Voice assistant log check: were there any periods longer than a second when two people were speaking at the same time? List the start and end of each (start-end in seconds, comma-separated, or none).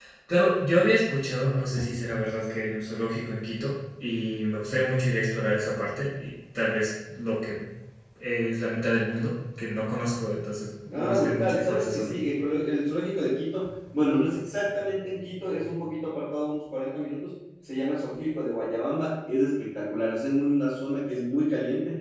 10.9-12.2